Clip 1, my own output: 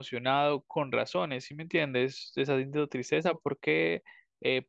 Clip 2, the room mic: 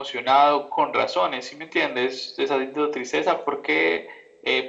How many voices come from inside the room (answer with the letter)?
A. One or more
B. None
B